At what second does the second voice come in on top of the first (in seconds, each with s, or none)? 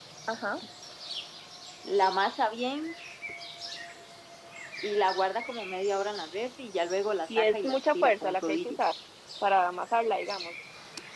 7.3 s